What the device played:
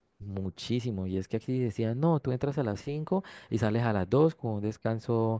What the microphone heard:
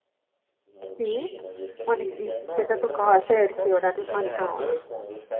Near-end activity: present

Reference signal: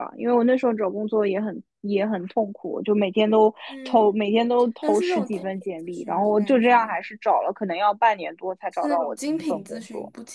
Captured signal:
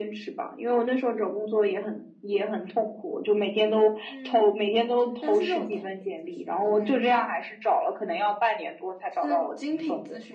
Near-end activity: none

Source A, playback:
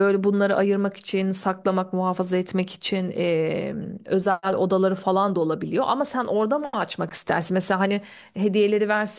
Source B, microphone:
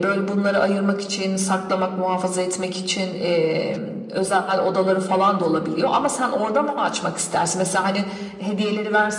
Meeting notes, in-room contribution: present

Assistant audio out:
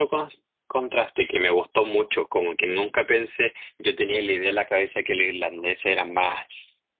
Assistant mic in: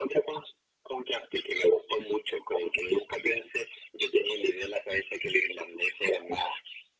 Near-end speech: none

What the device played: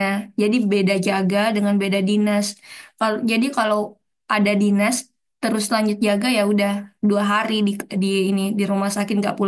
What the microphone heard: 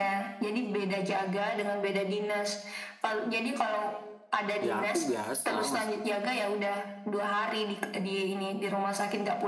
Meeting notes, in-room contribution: present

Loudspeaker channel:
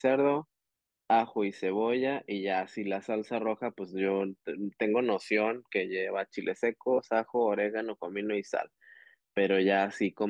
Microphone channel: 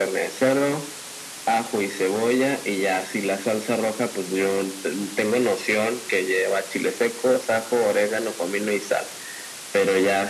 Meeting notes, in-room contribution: none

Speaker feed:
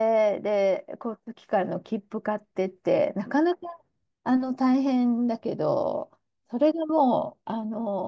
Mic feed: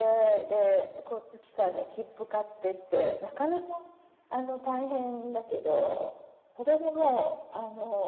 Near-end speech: none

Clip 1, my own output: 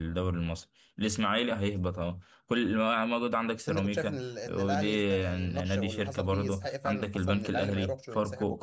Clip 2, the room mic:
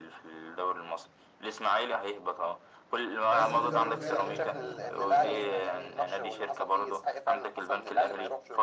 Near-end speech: present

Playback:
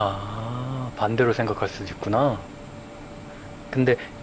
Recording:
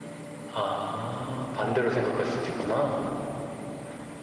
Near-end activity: none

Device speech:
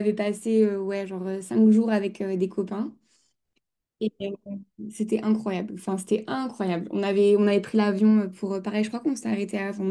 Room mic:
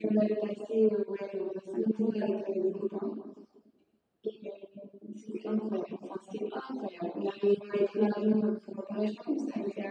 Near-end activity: none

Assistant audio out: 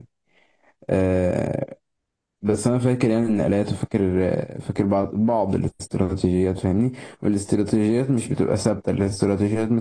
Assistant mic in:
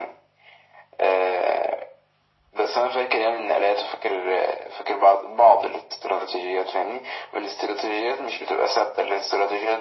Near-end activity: none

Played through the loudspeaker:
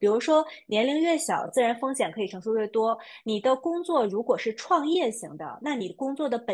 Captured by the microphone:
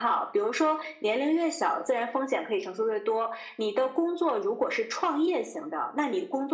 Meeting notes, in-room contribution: none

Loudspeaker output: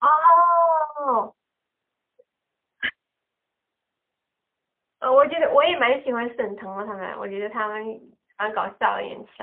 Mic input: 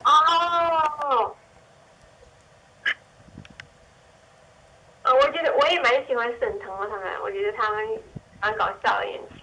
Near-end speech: none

